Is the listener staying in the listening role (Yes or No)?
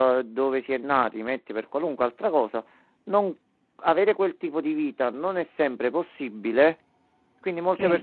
Yes